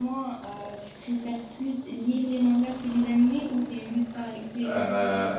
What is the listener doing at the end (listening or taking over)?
taking over